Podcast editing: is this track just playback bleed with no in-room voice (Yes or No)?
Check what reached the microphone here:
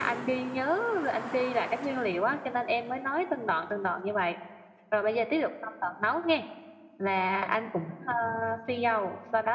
Yes